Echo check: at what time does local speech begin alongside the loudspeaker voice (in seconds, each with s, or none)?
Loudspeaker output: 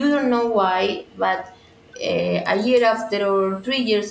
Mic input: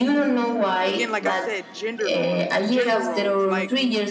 0.8 s